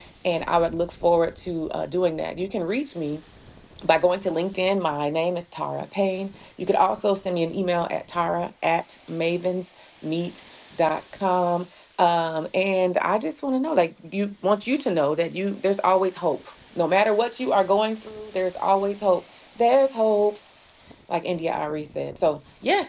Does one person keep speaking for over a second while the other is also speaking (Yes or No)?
No